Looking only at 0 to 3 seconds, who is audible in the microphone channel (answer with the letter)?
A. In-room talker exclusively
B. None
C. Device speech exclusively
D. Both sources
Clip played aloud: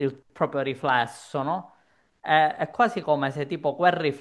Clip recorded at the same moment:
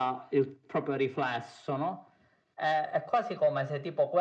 C